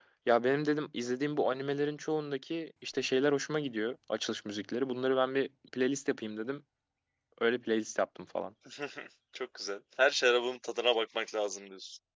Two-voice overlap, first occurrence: none

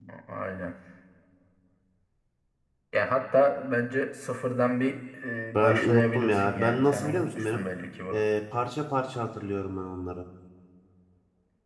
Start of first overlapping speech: 6 s

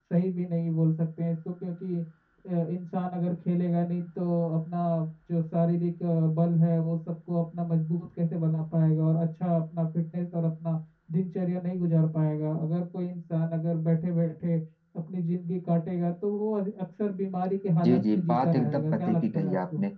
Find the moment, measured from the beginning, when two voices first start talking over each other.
18 s

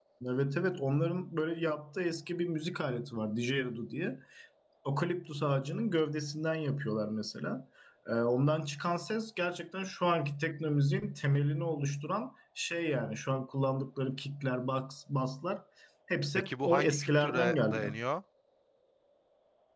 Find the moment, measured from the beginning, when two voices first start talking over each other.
16 s

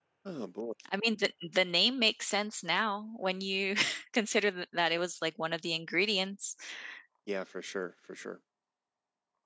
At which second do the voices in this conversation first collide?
none

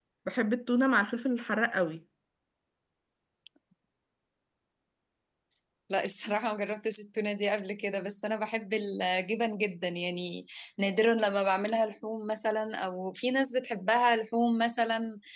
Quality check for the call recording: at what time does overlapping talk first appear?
none

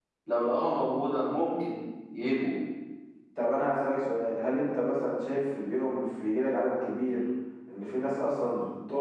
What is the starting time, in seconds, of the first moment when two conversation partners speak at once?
none

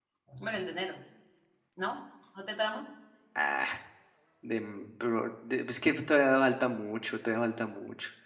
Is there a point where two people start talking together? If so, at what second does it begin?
none

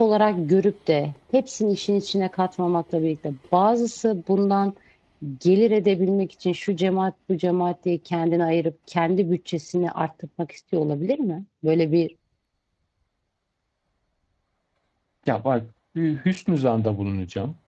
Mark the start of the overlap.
none

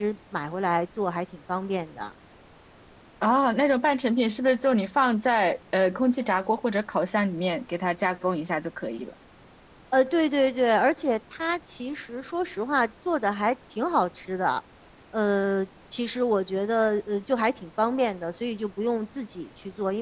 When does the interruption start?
none

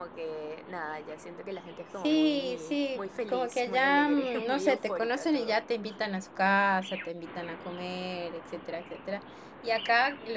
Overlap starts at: 2 s

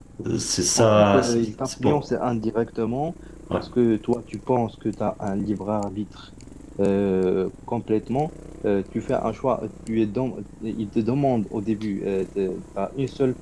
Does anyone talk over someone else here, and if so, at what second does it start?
1 s

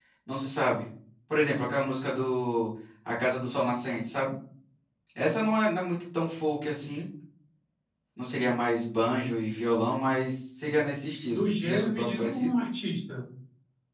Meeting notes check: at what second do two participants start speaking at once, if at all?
11 s

